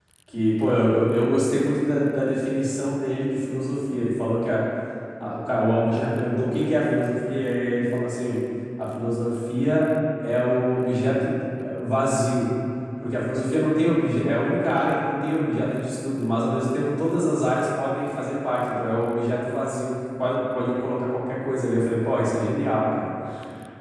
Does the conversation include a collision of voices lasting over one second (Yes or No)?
No